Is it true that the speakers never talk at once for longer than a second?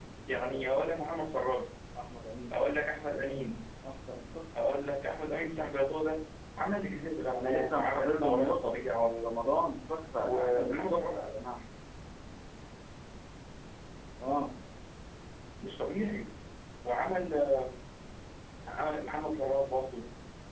No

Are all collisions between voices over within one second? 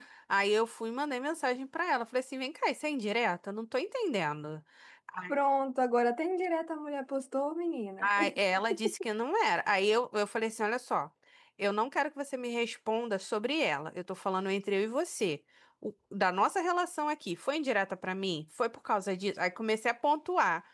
Yes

